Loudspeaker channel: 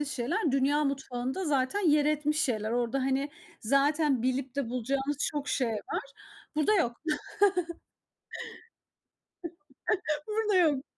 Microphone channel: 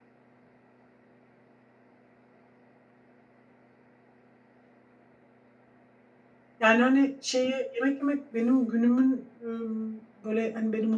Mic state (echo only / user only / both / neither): user only